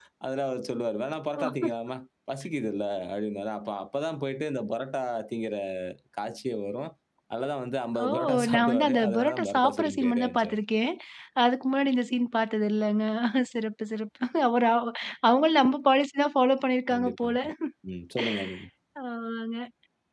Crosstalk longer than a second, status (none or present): present